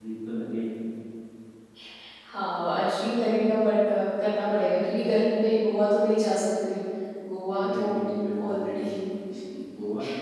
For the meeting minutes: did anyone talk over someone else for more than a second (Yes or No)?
No